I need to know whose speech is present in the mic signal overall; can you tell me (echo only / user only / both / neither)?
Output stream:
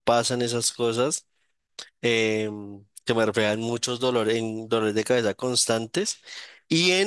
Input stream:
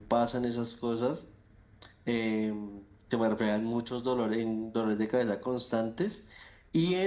echo only